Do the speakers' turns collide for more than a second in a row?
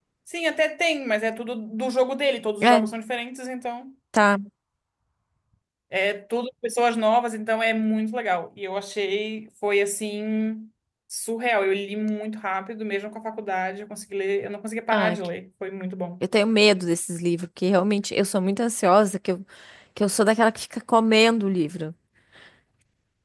No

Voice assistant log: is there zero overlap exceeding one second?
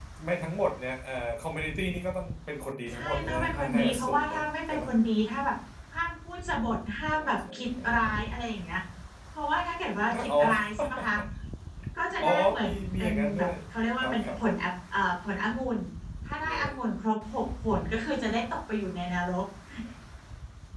No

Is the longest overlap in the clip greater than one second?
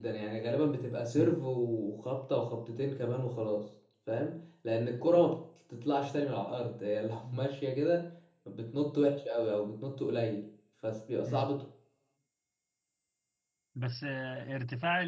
No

